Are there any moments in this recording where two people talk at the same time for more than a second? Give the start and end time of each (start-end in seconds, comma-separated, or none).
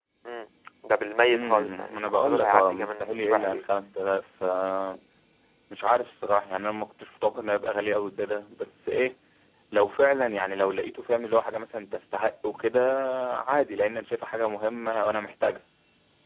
1.3-3.6